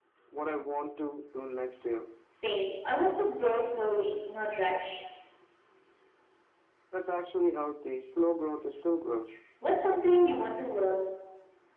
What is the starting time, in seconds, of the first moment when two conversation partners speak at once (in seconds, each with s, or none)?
none